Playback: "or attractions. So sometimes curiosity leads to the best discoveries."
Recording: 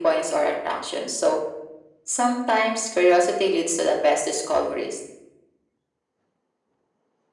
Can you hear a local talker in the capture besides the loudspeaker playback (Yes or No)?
No